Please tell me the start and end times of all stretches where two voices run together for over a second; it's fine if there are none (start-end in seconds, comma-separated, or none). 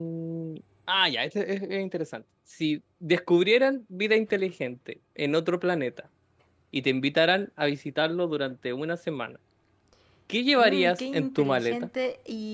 10.5-11.9